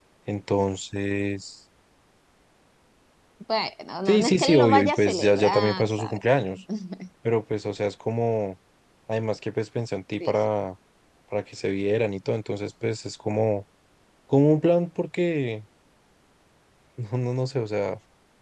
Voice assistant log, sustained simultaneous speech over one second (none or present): present